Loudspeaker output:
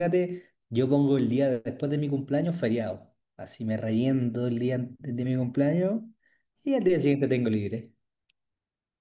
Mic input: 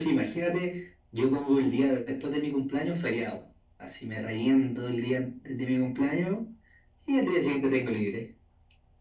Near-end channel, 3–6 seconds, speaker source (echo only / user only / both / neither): echo only